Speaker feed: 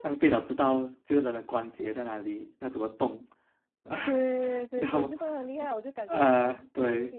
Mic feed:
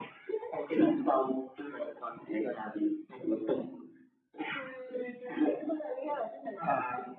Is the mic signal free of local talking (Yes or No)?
Yes